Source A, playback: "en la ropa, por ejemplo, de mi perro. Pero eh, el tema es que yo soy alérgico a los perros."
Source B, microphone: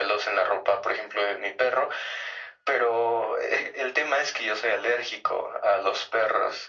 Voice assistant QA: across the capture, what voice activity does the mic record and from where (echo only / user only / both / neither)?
echo only